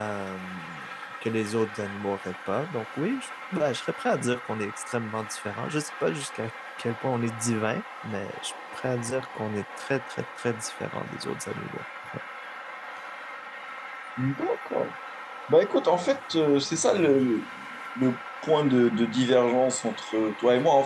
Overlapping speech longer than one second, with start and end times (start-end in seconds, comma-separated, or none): none